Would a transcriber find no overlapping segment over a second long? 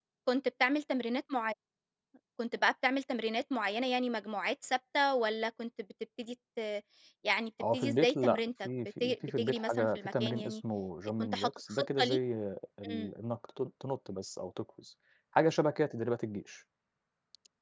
No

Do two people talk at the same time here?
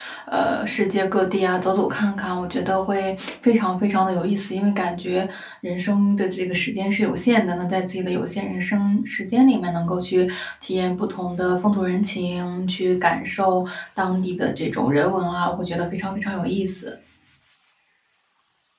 No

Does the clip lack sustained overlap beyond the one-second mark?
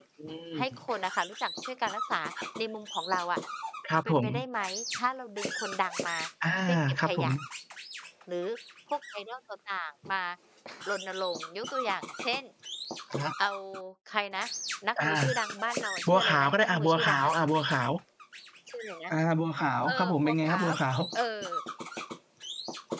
No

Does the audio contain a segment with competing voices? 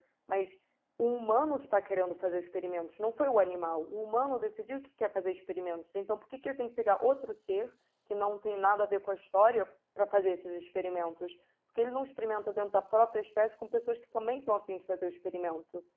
No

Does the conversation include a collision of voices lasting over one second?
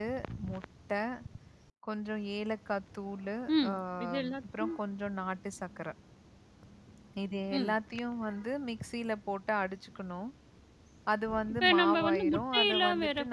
Yes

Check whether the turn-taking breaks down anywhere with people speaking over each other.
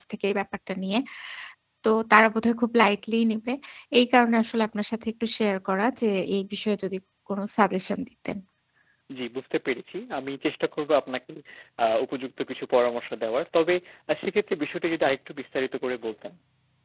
No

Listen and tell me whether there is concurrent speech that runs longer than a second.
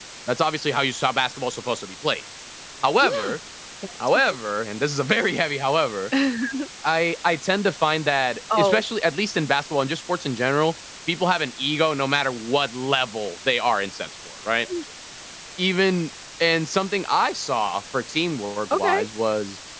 No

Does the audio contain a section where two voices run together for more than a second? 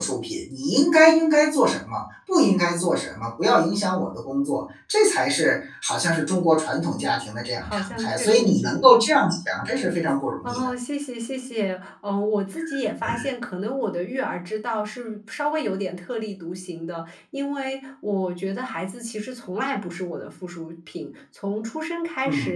Yes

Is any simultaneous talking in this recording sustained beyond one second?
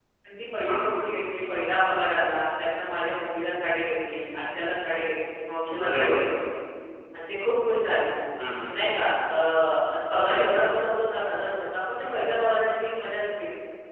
No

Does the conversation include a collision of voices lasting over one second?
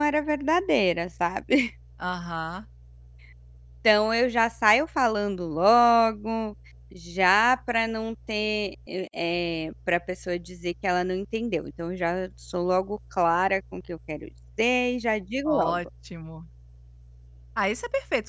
No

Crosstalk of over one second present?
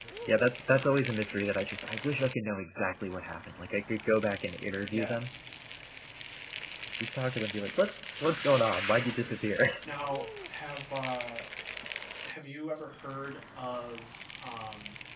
No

